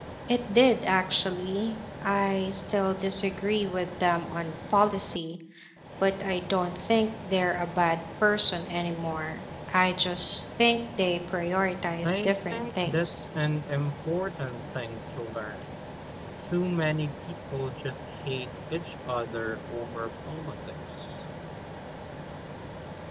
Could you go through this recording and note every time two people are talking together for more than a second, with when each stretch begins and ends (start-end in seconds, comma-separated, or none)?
12.0-13.3